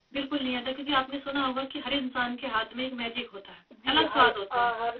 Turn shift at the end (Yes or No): Yes